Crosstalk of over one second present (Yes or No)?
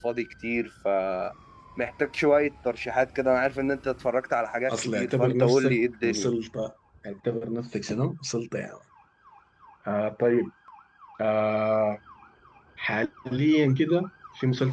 Yes